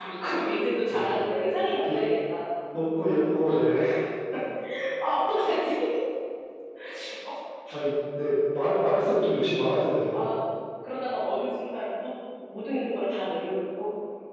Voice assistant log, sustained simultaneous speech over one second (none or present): none